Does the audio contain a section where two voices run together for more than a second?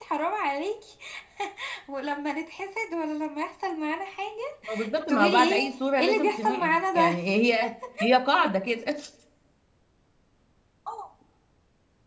Yes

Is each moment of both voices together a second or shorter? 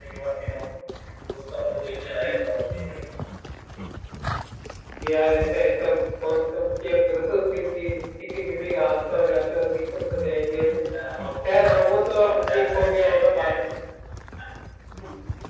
No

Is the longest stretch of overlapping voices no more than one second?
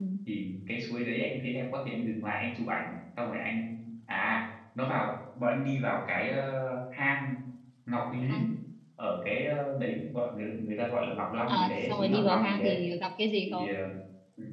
No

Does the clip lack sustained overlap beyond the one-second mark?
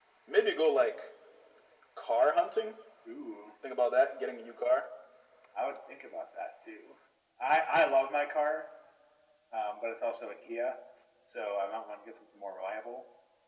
Yes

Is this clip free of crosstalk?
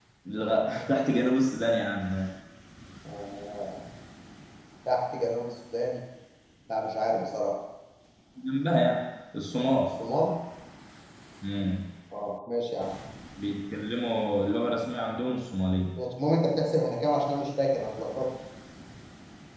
Yes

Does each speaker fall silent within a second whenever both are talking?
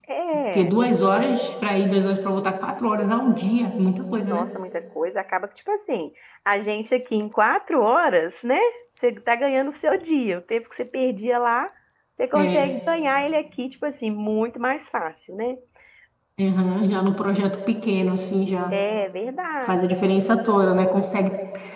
Yes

